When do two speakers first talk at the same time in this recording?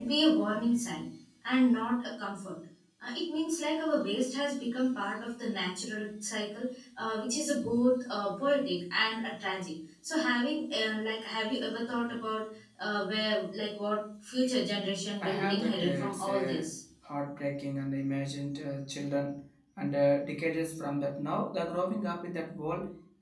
15 s

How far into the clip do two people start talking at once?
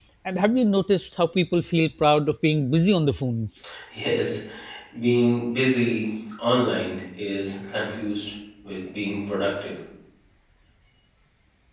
none

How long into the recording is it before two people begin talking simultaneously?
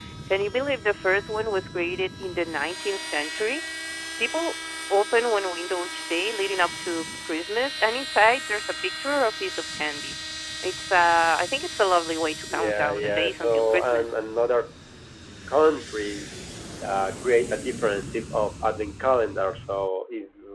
12 s

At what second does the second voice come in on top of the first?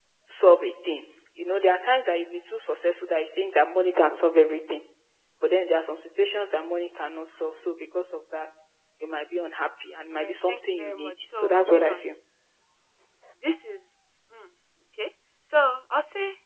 10 s

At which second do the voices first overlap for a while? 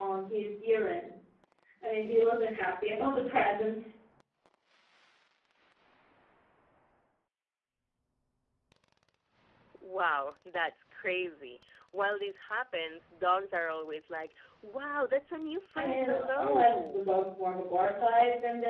16 s

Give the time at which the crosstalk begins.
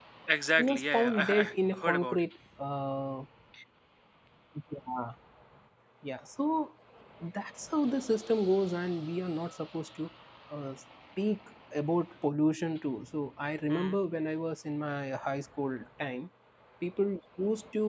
1 s

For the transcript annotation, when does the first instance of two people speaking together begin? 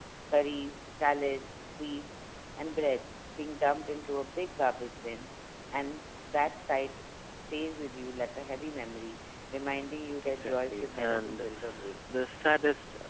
10 s

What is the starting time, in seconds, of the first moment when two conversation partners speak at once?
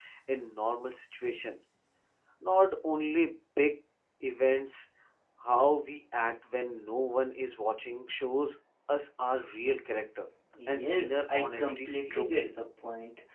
11 s

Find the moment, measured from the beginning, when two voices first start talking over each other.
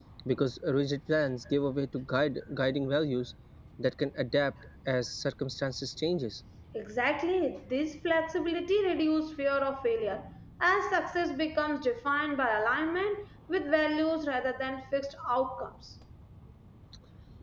none

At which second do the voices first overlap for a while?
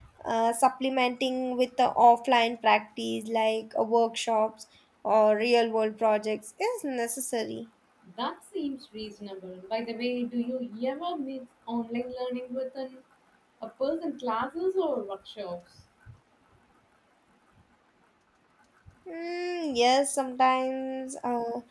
none

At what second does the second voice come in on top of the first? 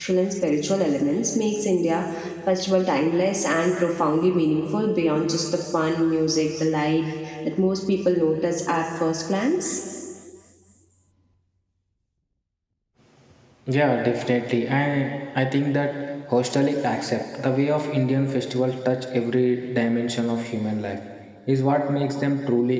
none

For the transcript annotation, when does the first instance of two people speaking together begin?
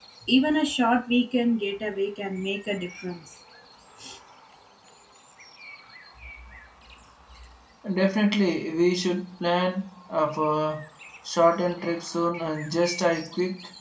none

